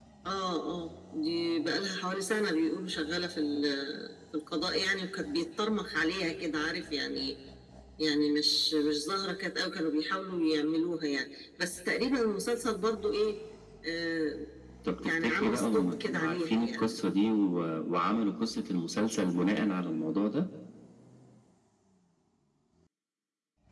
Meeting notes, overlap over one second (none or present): present